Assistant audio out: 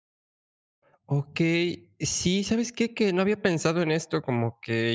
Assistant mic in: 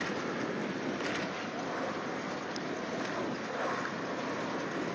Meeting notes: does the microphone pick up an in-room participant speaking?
No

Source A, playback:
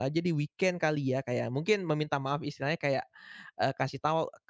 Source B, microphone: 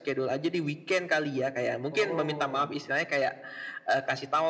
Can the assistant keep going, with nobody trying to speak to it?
No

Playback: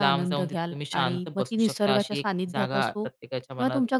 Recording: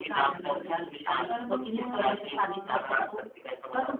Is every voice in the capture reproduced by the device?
No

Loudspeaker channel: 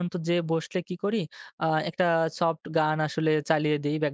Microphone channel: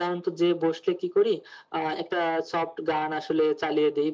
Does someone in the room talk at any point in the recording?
No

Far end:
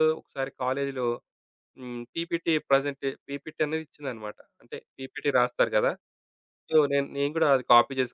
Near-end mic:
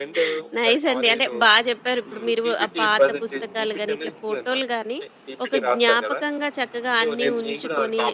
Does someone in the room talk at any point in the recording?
Yes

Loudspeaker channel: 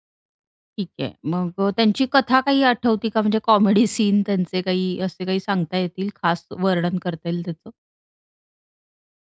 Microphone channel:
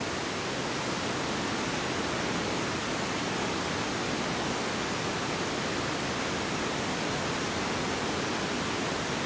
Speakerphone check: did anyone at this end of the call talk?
No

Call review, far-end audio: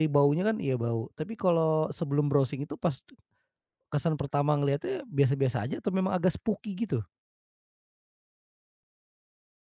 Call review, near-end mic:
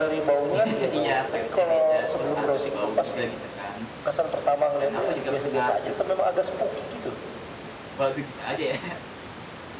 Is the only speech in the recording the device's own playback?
No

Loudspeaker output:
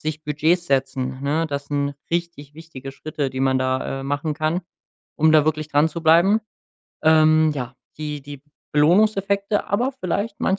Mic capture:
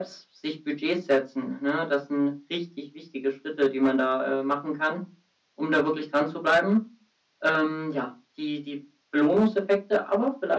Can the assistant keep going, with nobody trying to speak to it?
Yes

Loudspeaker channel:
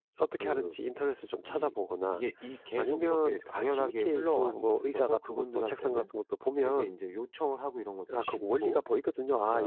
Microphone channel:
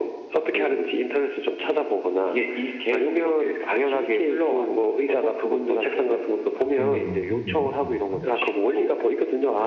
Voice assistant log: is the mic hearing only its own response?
No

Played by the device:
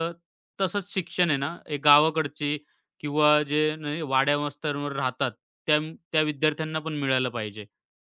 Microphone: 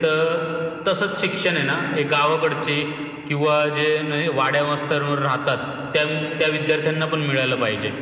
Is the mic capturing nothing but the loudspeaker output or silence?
Yes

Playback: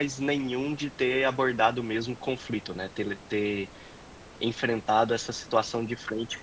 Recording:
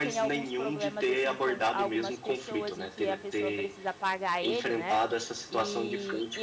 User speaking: Yes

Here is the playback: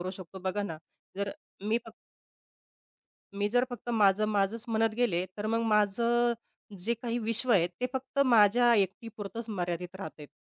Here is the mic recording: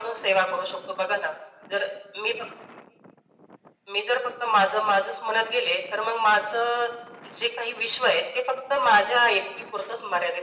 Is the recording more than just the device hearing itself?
No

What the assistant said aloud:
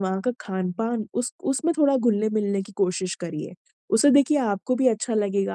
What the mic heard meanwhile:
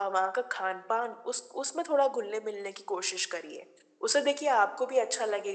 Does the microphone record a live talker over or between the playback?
No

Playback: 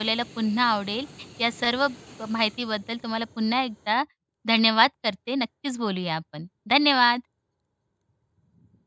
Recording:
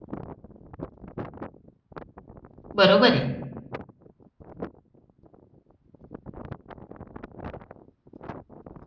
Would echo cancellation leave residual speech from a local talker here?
Yes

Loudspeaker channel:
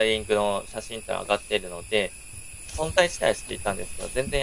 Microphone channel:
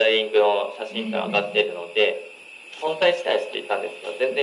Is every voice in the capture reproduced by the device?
No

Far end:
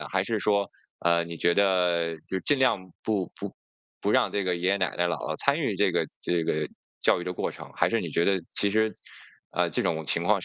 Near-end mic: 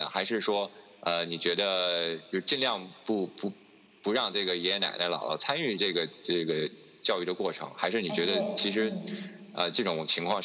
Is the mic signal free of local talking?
No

